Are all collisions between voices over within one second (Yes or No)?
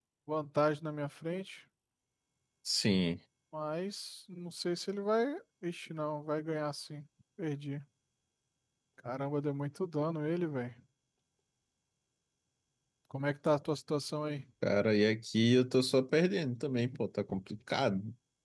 Yes